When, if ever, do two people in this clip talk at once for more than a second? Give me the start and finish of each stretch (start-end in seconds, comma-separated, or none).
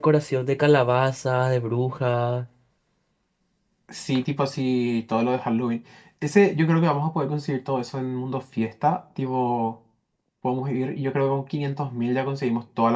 none